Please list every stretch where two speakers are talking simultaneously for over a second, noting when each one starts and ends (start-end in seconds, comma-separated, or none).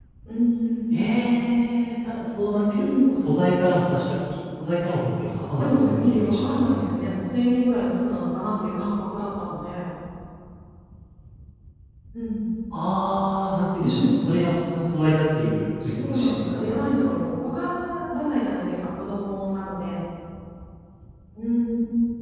5.5-7.1, 15.9-17.2